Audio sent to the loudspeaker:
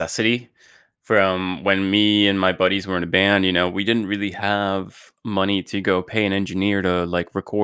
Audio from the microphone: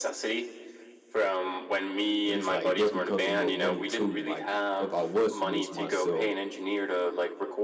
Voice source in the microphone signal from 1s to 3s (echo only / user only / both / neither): both